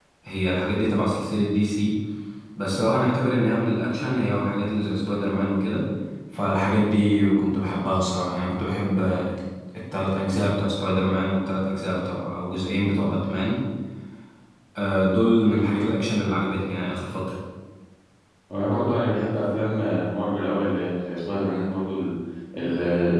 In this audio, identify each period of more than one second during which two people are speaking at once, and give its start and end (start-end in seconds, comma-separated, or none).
none